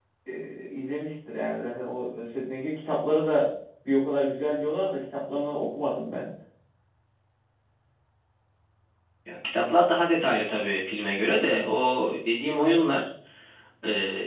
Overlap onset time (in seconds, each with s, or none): none